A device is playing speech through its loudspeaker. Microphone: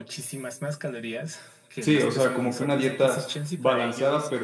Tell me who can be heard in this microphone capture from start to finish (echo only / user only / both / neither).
both